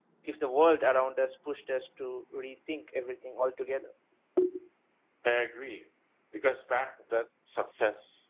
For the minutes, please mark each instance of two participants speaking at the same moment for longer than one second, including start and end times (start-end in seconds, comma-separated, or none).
none